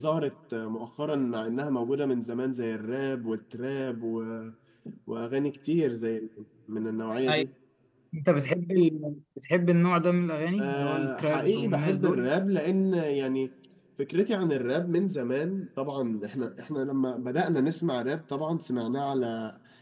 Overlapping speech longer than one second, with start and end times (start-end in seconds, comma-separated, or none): 10.6-12.3